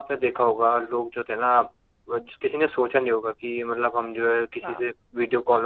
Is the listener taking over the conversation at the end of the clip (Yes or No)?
No